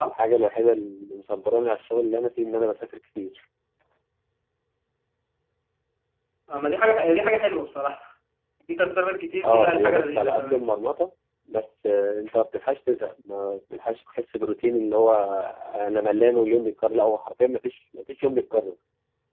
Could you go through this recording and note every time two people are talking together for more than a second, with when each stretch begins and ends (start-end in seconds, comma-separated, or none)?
9.4-10.7